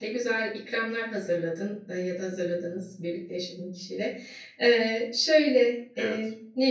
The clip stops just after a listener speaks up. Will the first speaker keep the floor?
Yes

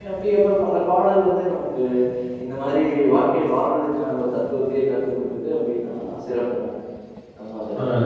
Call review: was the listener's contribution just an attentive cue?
No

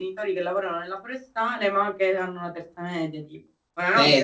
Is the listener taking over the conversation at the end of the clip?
Yes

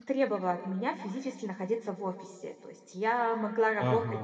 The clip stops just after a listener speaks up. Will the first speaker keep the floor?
Yes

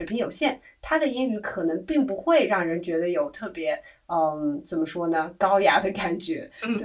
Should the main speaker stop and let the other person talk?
Yes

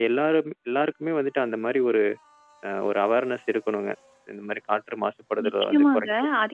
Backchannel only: No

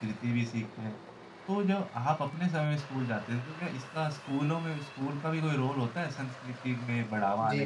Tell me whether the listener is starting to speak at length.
Yes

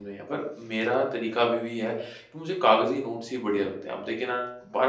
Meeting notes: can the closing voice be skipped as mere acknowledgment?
Yes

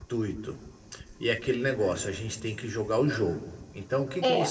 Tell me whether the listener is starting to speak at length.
No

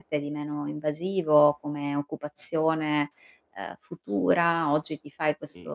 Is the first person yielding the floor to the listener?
No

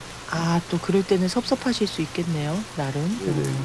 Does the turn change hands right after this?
Yes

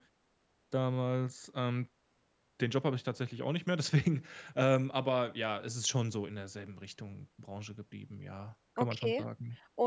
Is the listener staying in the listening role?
No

